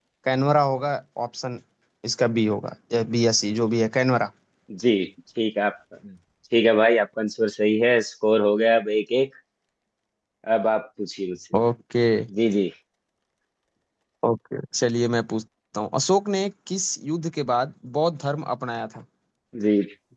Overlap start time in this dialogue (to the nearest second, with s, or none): none